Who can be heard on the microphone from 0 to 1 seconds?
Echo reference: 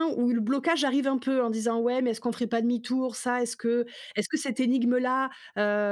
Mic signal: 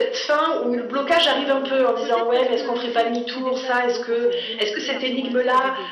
echo only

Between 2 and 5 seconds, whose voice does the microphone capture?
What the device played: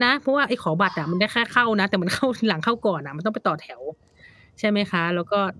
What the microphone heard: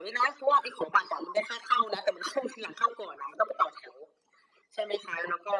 echo only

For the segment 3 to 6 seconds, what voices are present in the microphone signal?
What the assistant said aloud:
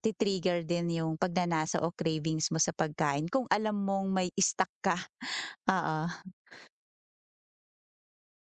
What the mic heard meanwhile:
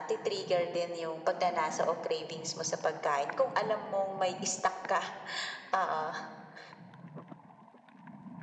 echo only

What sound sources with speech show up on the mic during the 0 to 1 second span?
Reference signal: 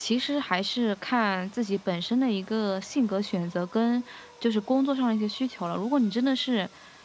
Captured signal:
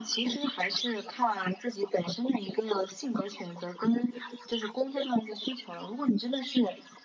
echo only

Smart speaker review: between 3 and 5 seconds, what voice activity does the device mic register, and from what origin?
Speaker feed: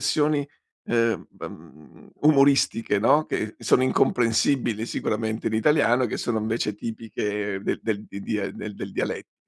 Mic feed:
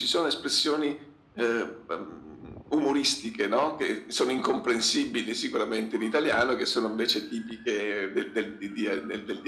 echo only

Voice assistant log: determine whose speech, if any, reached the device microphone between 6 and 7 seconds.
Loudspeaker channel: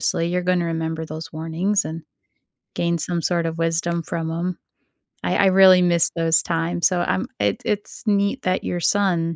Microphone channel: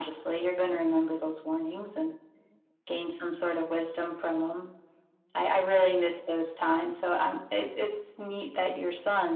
echo only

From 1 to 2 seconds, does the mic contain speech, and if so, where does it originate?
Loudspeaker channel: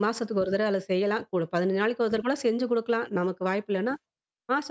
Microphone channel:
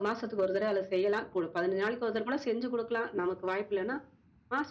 echo only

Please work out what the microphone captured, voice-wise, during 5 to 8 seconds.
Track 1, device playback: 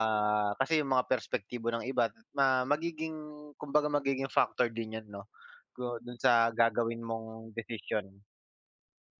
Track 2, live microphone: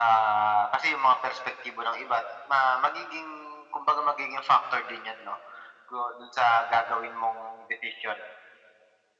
echo only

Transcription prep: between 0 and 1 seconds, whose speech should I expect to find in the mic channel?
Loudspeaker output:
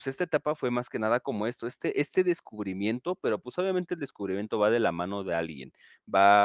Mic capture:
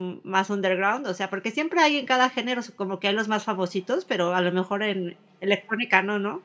user only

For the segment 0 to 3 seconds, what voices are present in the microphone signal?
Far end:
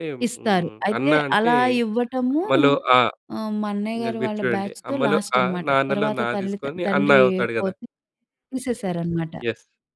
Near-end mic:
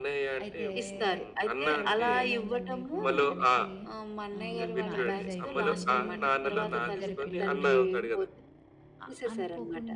both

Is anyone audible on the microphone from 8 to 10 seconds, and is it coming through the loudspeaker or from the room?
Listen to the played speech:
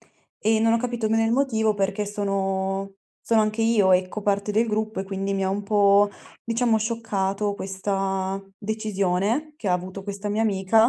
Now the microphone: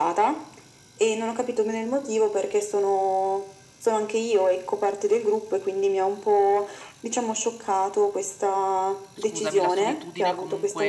both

